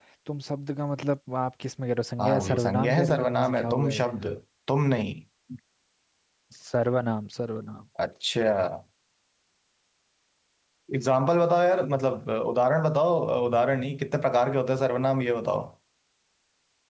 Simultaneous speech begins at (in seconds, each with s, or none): 2.2 s